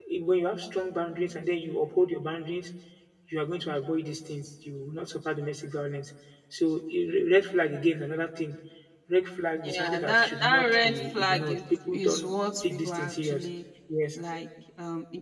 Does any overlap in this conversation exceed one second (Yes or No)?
Yes